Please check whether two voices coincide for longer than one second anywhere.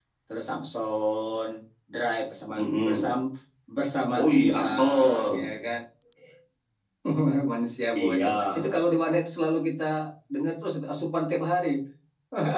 Yes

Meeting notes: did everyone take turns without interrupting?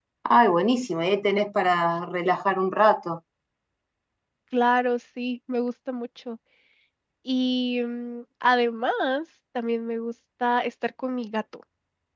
Yes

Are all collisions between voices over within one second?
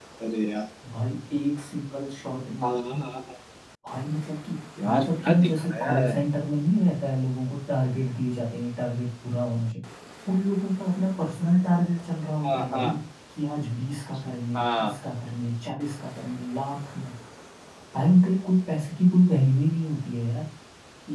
No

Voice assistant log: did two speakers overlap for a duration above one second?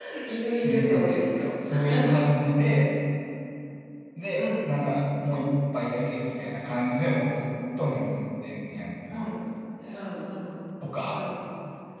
No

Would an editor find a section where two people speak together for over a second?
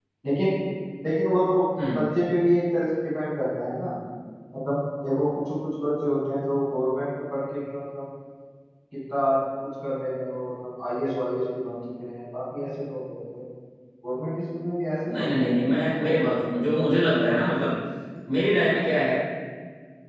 Yes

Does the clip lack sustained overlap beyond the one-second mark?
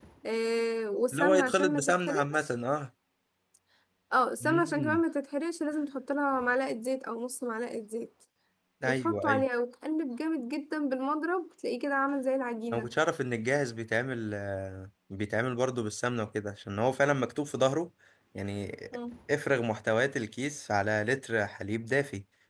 No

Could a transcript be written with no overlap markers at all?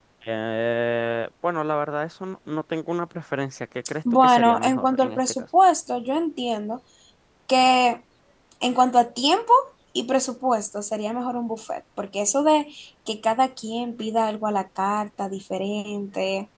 No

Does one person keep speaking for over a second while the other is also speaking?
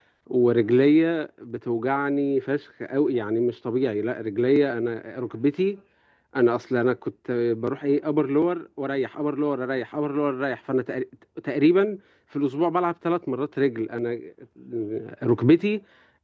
No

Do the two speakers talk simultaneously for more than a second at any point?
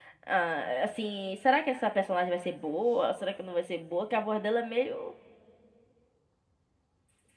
No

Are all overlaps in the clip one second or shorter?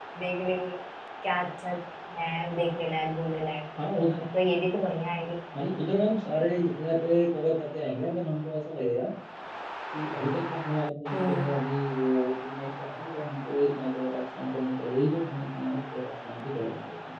Yes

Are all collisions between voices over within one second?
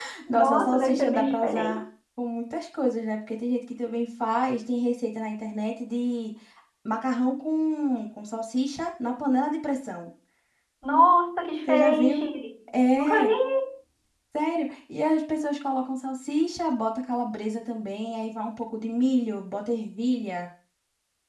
No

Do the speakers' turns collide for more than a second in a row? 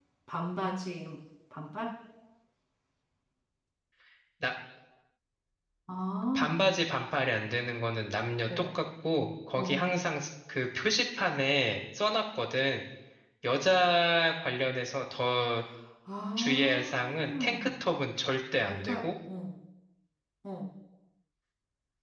Yes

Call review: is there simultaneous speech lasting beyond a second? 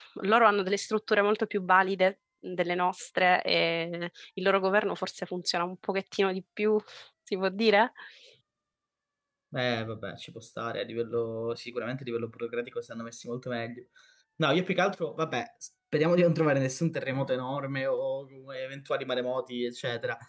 No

